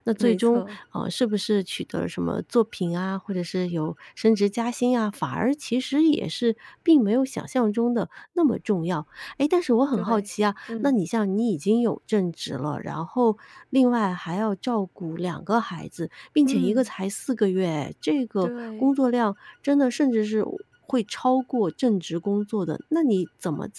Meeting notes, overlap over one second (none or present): none